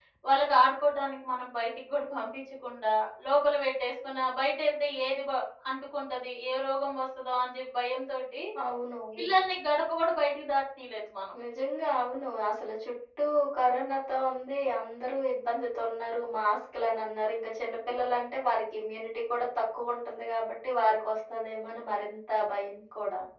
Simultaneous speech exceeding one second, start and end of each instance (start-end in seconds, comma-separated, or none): none